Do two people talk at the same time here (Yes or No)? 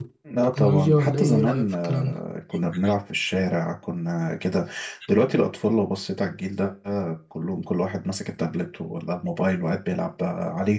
Yes